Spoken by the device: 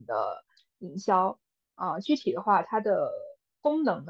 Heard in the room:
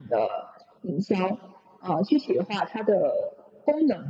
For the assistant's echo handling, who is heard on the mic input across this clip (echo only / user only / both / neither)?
echo only